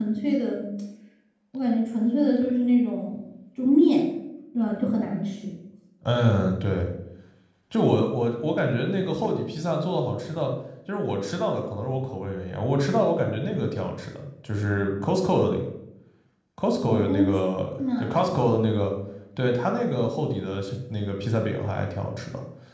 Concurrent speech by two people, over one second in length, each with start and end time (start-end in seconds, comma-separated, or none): none